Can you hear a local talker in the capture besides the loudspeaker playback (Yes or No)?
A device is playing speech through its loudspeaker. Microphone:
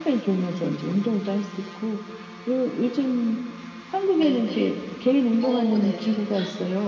Yes